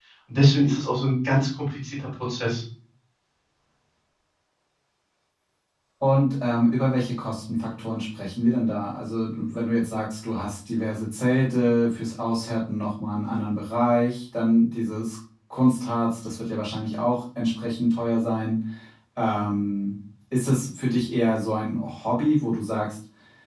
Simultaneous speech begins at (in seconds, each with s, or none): none